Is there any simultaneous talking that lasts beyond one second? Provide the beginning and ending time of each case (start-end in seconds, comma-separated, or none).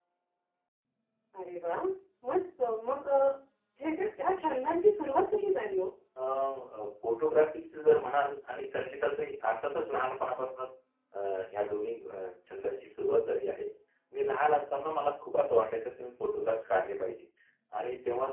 none